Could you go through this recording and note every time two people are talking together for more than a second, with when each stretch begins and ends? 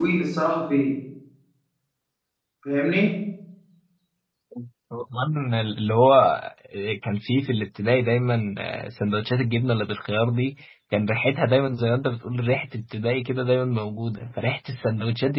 none

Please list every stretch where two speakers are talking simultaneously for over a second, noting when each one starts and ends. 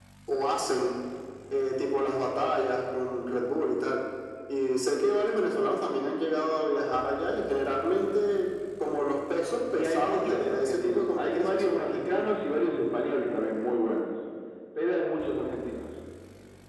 9.7-12.3

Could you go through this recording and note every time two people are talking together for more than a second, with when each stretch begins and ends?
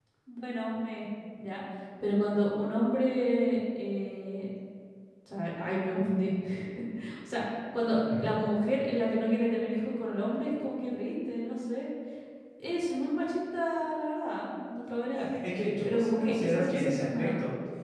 15.8-17.3

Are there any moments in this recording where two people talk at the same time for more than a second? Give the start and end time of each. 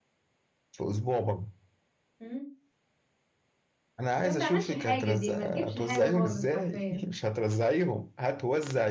4.2-7.0

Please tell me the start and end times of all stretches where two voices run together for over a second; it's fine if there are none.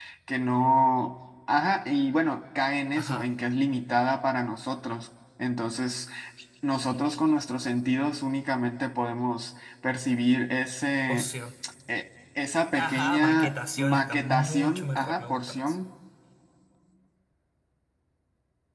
12.8-15.8

